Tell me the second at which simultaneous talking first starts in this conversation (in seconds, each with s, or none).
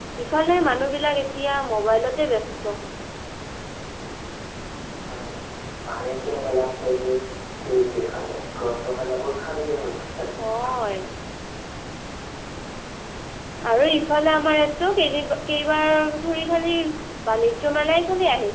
none